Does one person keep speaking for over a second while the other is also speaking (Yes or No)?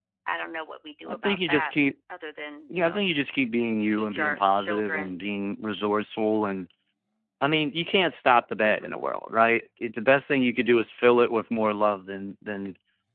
Yes